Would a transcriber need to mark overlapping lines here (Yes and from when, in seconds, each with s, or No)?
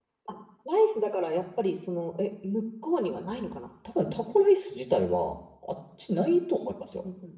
No